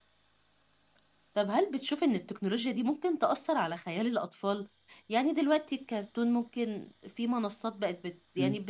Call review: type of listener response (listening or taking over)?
listening